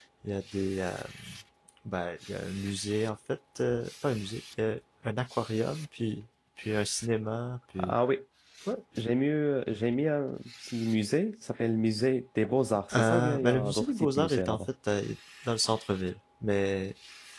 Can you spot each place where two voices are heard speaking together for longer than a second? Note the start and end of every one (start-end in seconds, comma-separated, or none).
12.9-14.6